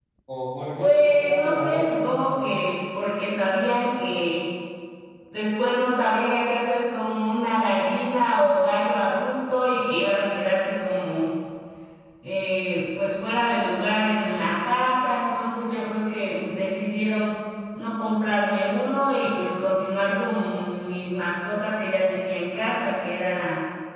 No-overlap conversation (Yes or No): No